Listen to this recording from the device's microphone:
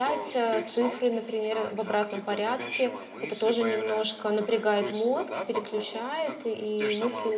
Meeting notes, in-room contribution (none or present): present